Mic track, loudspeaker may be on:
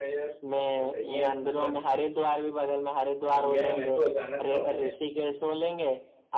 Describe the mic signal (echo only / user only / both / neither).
both